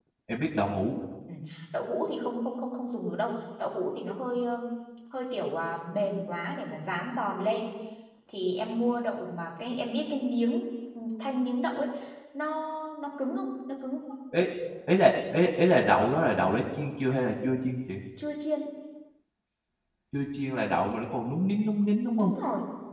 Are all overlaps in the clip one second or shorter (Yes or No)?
Yes